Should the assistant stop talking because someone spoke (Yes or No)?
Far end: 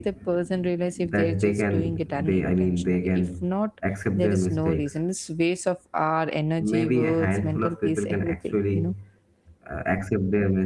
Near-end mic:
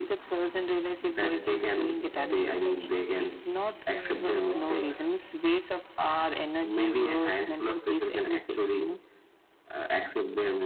Yes